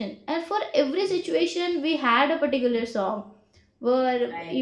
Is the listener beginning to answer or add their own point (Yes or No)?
No